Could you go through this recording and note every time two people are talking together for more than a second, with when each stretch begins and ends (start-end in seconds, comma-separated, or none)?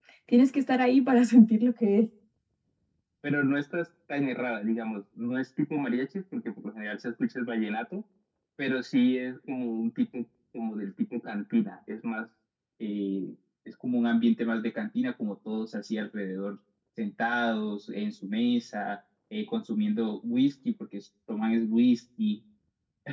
none